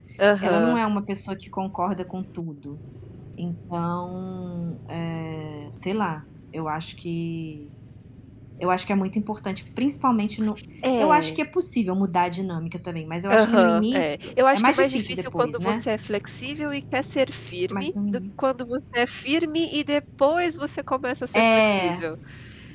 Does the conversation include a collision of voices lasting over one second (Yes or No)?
Yes